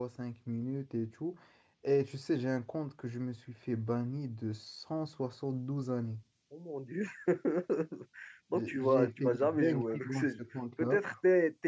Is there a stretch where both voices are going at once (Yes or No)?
Yes